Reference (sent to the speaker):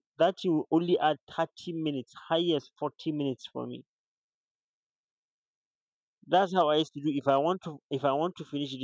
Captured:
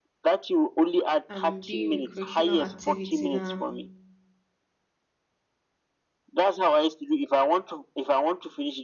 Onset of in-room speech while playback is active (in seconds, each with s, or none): 1.3 s